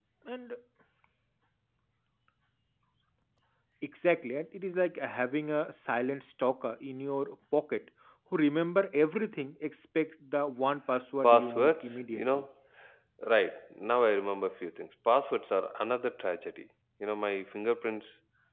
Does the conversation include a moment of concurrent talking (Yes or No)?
Yes